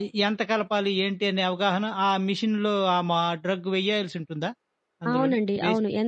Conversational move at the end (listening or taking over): taking over